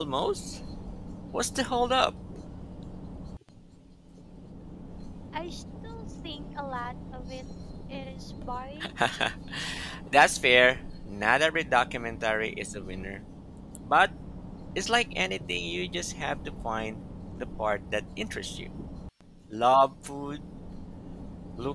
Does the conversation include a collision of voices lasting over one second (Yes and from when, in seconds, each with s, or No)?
No